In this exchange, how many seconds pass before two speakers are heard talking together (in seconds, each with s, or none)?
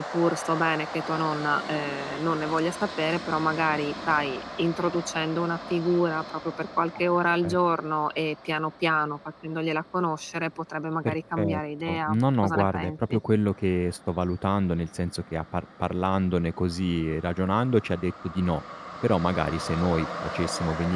11.0 s